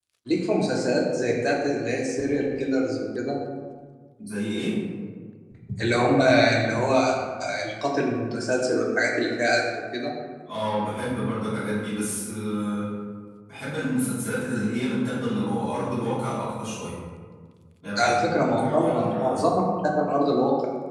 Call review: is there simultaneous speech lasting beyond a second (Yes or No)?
Yes